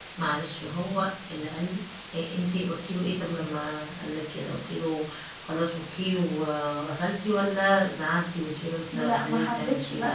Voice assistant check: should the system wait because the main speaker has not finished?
No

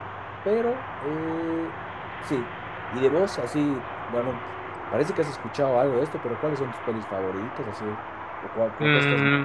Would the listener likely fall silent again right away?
No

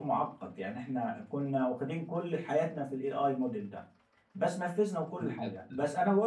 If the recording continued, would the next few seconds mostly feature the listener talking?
No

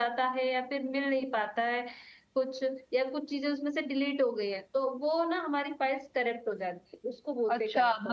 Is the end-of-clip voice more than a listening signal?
Yes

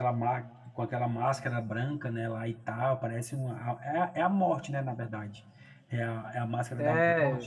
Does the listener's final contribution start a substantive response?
Yes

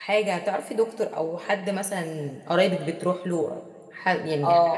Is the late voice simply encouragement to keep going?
No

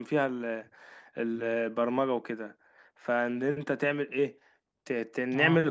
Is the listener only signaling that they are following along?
Yes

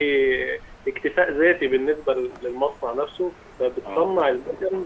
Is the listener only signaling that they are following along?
Yes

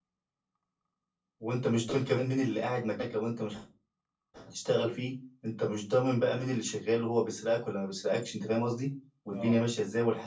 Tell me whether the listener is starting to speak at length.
No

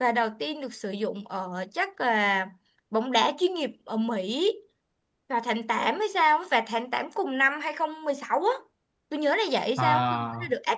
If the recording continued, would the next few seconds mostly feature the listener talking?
No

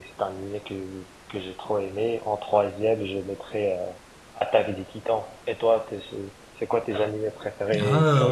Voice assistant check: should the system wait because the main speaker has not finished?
No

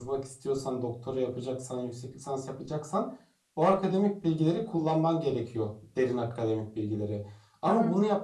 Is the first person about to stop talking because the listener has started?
No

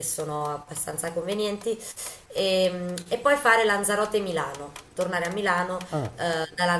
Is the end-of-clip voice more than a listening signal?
No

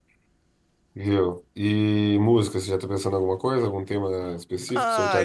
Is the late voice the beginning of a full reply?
Yes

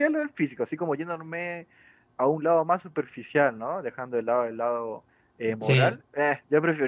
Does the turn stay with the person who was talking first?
Yes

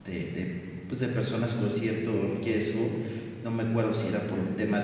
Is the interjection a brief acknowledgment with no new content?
Yes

